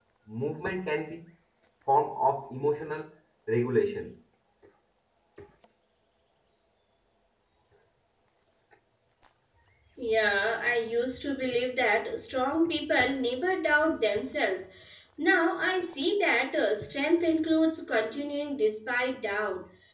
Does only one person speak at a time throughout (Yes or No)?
Yes